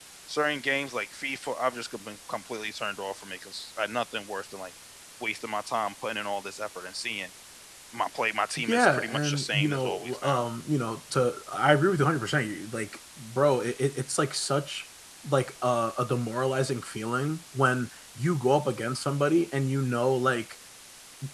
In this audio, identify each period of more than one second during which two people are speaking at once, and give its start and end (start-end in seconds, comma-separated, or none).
8.6-10.5